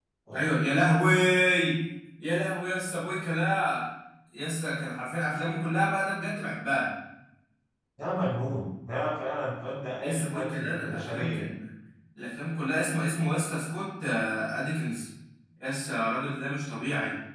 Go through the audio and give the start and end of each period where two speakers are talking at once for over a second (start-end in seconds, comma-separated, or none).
10.0-11.5